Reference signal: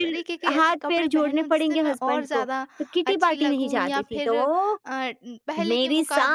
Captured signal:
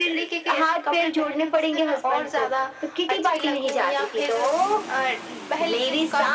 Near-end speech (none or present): none